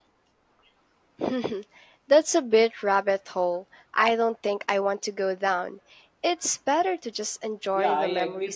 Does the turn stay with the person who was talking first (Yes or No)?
No